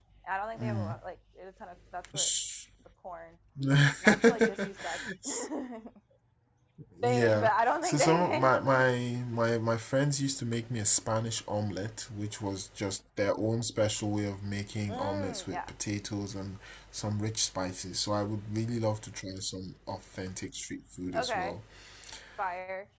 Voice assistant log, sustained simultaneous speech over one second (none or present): present